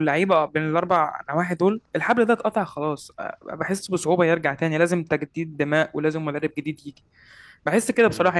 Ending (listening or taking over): listening